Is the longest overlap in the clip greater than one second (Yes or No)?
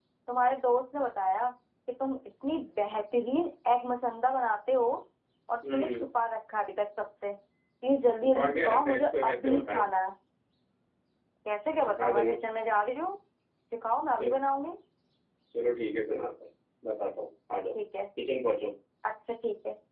Yes